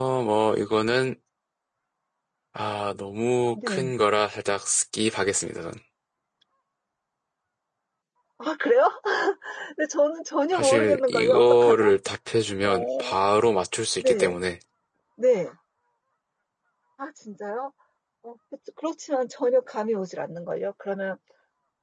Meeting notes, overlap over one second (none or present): present